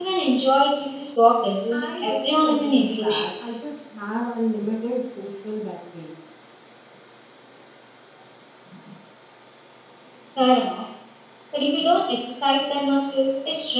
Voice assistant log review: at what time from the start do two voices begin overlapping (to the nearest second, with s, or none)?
2 s